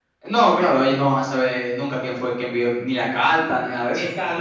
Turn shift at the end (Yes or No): Yes